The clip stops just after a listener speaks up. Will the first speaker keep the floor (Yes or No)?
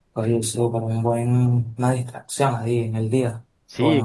No